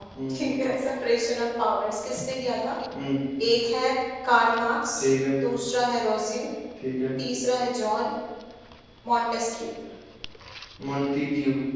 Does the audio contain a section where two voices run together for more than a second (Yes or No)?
No